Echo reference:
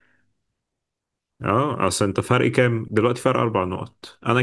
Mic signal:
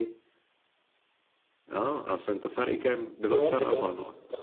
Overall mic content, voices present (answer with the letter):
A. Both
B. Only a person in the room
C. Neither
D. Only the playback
A